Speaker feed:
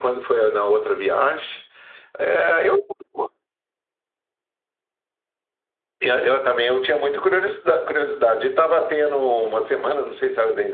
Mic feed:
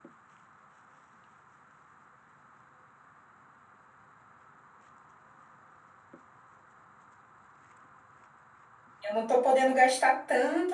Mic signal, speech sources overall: user only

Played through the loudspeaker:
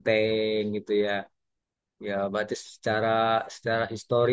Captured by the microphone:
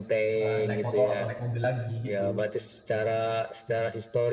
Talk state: both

